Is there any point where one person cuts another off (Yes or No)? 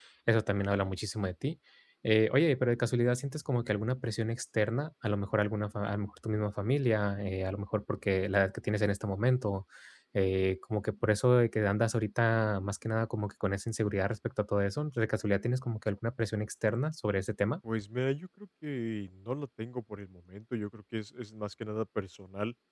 No